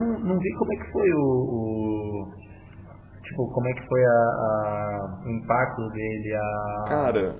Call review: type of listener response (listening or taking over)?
listening